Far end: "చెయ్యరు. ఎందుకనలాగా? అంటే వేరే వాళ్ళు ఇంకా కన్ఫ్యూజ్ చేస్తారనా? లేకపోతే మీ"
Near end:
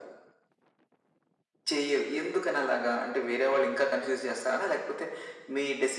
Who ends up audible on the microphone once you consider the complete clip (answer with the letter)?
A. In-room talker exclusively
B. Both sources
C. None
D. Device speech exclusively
D